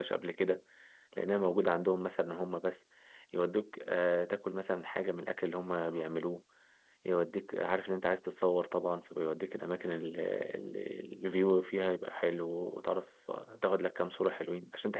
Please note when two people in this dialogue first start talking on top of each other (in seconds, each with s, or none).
none